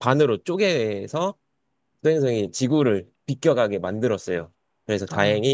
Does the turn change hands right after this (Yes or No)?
No